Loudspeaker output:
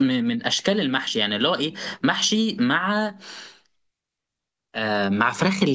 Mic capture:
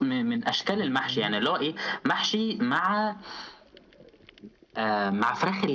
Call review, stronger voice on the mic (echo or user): echo